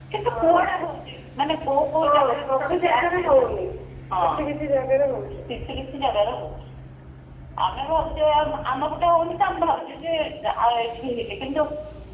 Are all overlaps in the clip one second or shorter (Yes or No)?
No